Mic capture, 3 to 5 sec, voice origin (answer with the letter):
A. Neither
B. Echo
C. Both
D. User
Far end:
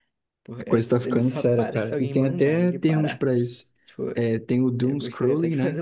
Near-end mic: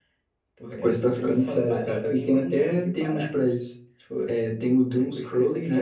B